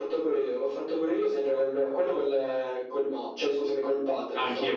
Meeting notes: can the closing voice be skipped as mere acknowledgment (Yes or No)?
No